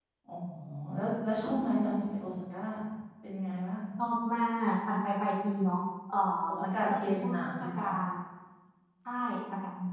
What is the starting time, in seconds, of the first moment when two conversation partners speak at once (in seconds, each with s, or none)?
6.6 s